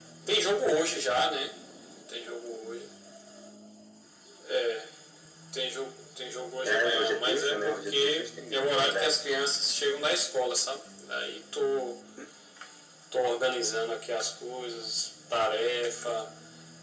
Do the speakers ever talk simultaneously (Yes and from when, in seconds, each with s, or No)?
Yes, from 6.6 s